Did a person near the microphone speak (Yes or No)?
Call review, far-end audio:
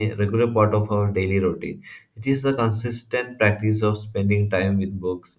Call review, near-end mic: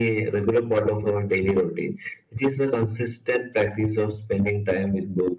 No